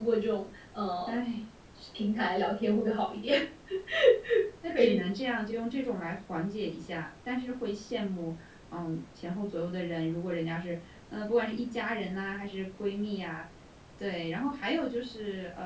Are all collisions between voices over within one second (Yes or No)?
Yes